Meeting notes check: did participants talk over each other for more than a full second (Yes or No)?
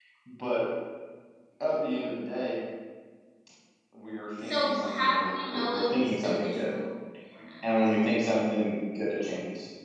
Yes